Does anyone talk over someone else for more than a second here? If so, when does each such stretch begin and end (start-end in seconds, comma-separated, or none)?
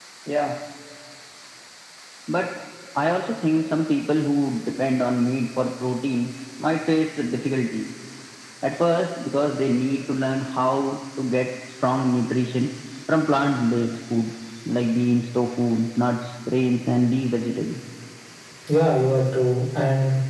none